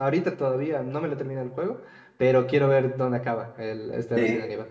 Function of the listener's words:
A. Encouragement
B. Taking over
B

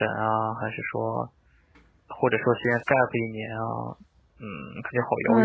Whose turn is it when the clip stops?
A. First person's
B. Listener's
B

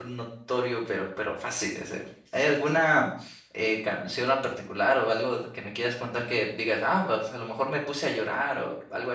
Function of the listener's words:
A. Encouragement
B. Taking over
B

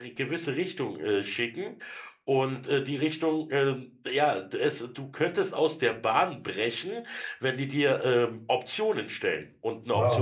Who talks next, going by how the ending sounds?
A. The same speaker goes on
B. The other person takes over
B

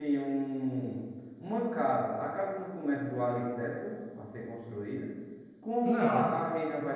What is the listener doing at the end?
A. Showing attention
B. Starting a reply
A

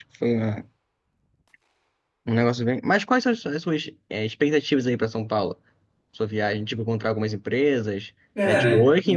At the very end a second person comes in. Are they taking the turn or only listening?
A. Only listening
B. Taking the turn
A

